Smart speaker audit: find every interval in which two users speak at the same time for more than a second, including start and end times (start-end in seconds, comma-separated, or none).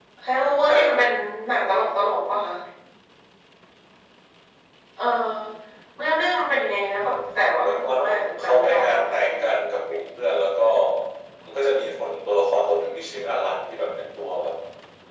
7.6-9.3